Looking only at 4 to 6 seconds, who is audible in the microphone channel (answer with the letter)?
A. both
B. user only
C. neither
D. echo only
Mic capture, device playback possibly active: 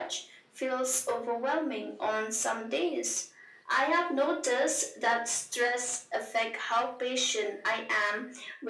D